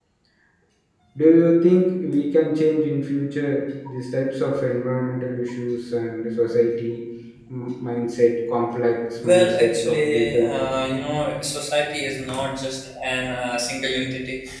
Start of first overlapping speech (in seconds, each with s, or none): 9.1 s